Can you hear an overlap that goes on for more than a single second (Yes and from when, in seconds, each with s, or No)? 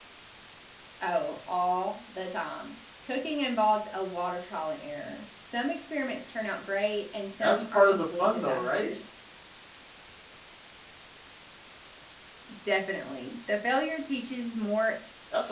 Yes, from 7.4 s